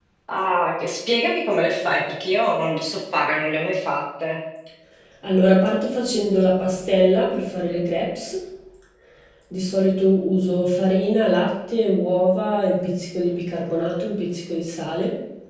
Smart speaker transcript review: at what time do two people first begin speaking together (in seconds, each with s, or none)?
none